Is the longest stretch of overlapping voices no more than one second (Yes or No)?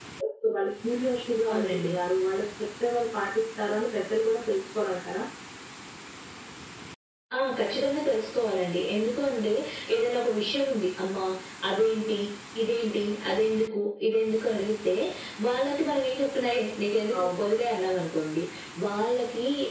Yes